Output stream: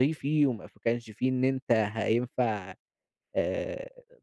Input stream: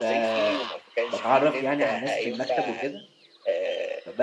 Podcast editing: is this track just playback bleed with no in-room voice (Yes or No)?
No